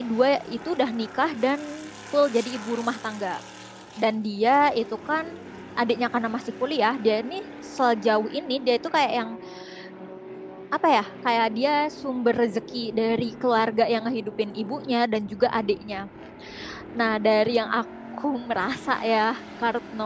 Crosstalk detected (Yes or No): No